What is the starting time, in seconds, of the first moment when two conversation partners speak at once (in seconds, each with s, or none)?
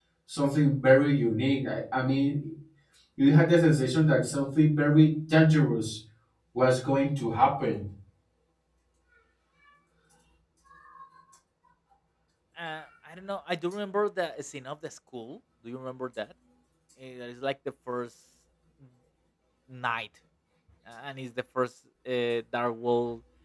none